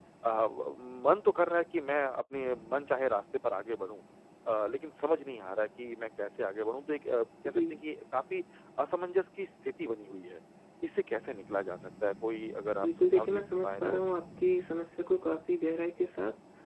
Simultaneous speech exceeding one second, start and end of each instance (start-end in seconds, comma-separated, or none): 12.8-14.2